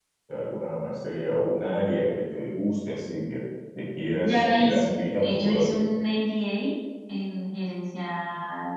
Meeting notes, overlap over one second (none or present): present